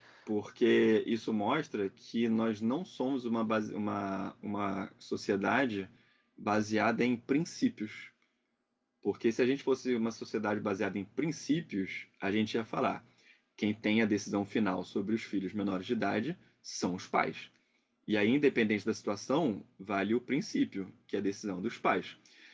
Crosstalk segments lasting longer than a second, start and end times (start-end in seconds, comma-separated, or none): none